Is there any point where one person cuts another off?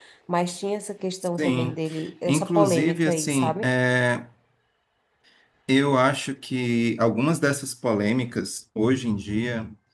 Yes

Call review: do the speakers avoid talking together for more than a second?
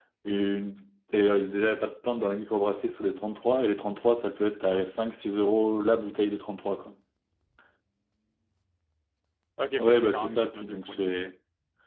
No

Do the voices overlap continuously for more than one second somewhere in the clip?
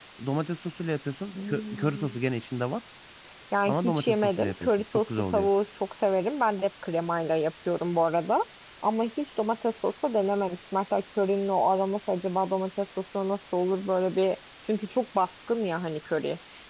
Yes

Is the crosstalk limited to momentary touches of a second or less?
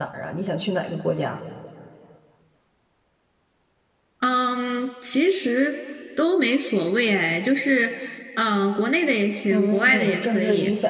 No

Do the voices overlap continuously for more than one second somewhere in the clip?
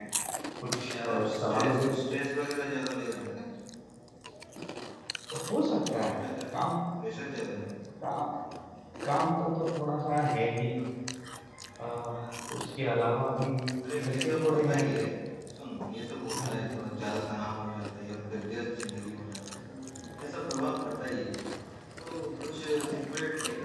Yes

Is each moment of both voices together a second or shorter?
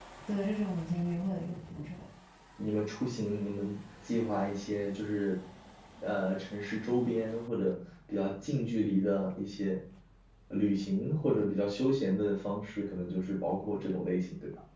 Yes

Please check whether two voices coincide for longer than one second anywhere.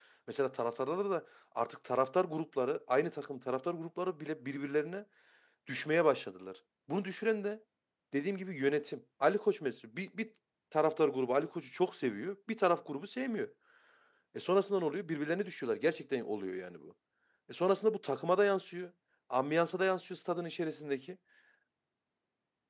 No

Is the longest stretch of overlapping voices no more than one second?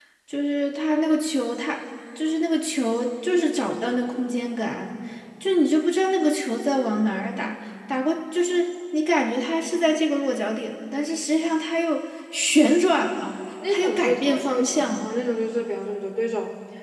No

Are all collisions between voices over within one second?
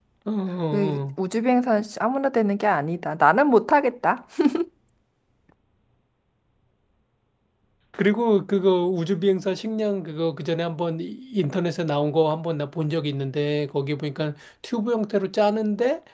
Yes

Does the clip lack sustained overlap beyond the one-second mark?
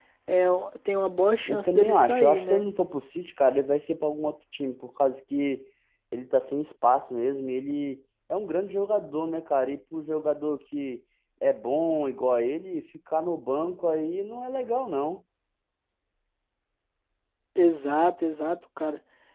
No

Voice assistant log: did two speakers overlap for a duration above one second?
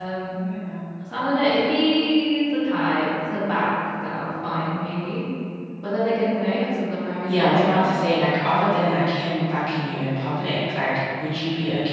No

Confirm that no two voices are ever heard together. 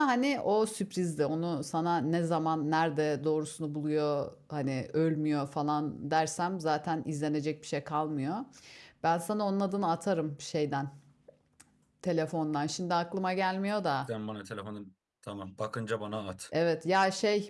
Yes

